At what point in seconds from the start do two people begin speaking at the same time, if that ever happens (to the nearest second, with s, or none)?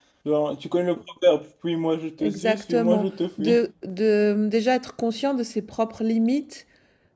2 s